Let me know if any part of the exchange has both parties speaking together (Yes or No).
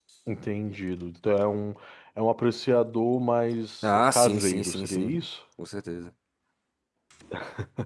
Yes